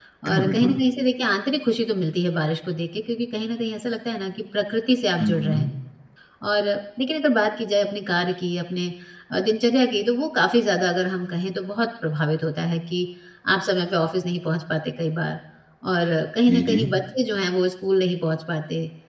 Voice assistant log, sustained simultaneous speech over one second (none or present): none